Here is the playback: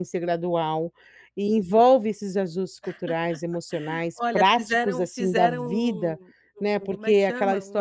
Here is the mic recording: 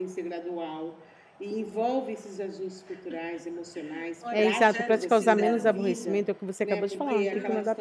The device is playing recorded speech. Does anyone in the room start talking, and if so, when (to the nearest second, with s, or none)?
4 s